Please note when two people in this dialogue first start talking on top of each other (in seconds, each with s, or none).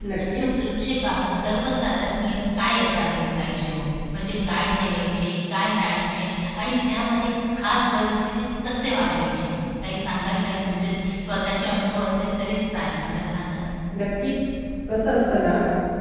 none